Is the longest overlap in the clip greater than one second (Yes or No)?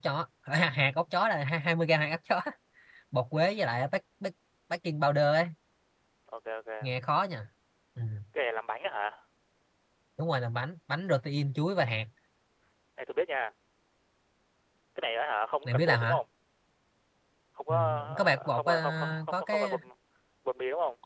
Yes